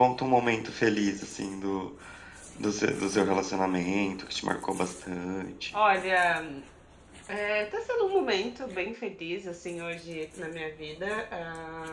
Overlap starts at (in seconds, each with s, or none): none